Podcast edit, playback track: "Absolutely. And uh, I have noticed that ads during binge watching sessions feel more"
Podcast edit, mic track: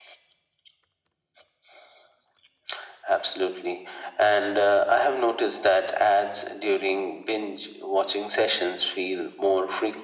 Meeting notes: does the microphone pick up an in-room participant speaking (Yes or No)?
No